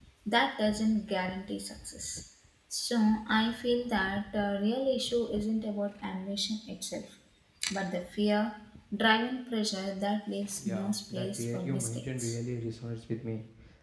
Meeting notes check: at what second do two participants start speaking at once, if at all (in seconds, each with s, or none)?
10.6 s